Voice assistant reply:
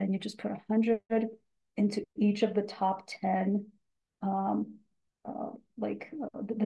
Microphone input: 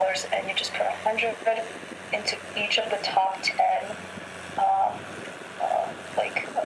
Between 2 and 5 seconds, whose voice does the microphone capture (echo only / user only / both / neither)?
echo only